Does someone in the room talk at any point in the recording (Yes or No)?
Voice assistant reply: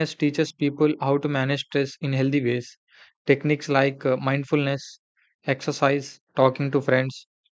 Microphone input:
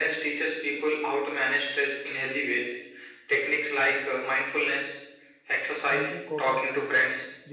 Yes